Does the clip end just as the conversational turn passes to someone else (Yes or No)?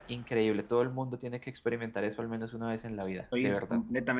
Yes